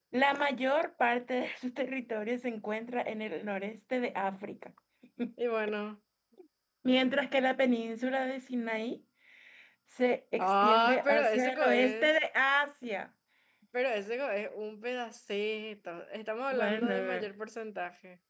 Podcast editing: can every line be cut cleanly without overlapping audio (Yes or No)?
No